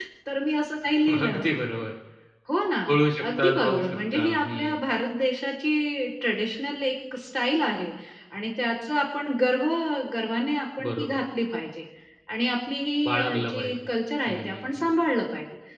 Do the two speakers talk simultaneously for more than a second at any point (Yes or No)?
Yes